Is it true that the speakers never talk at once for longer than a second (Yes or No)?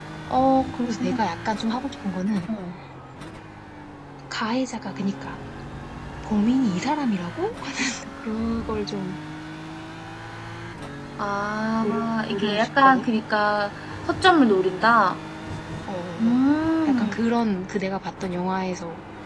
No